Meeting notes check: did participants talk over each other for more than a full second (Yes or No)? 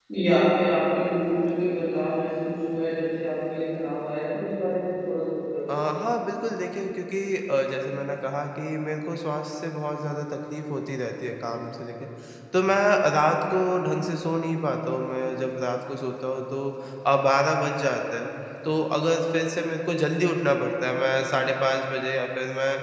No